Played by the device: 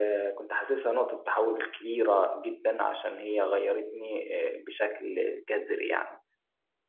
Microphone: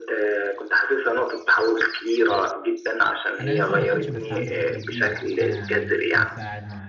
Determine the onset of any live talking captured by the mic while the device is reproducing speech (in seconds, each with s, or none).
3.4 s